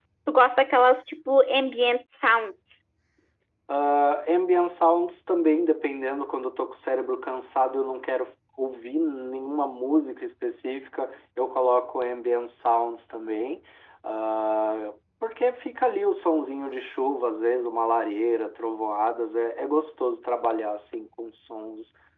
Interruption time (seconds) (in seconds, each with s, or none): none